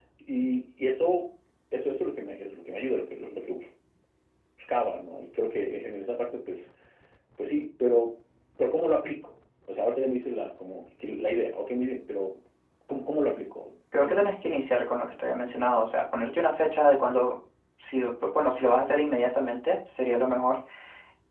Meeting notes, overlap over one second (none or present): none